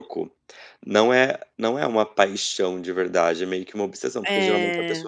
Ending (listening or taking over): listening